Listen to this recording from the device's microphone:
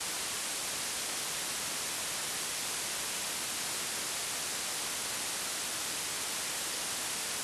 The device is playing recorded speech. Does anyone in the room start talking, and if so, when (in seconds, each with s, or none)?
none